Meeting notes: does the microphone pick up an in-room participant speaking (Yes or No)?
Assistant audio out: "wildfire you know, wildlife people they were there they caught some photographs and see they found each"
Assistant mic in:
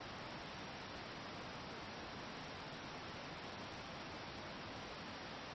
No